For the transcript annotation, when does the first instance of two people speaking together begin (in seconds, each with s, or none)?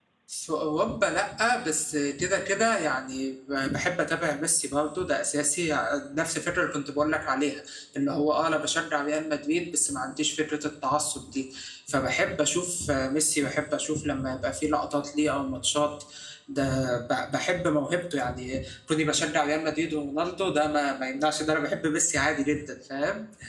none